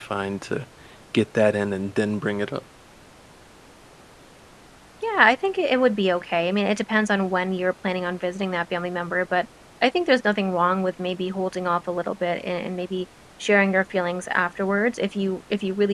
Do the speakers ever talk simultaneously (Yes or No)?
No